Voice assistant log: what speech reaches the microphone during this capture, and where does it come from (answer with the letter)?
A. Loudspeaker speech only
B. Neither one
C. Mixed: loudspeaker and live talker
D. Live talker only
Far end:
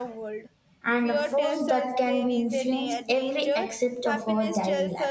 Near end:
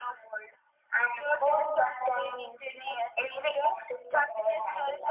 A